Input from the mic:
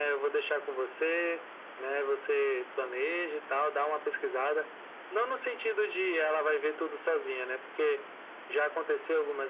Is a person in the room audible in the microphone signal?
No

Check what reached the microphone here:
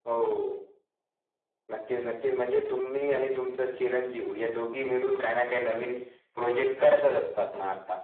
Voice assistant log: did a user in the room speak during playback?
No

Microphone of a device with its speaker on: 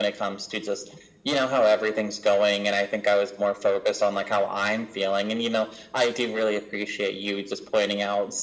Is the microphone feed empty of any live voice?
Yes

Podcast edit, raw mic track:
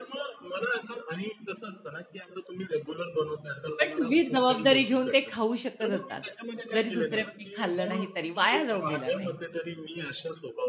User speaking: Yes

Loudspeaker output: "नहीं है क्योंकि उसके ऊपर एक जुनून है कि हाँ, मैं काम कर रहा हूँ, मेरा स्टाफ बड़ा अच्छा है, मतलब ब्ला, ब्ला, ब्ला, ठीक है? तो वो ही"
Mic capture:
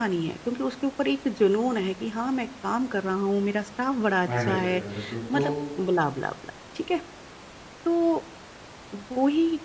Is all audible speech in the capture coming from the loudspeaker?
No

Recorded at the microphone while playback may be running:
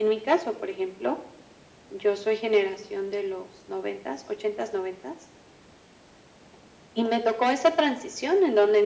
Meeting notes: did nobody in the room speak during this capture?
Yes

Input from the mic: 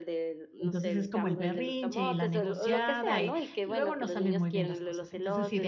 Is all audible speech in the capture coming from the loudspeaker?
No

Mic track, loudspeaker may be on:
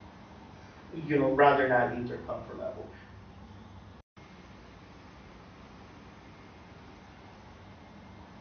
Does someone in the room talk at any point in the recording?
Yes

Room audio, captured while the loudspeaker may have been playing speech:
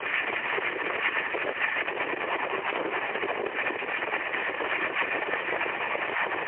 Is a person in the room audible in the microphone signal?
No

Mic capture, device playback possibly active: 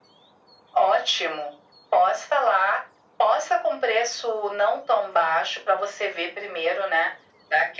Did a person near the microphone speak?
No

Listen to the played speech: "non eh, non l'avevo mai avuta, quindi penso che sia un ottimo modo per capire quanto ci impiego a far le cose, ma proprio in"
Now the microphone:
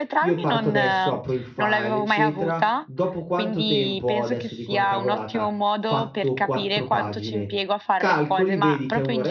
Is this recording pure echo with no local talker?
No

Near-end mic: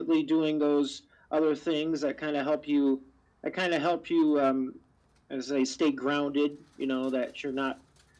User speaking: No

